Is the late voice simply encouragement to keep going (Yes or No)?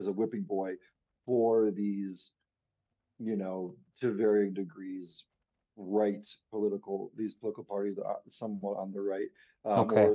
Yes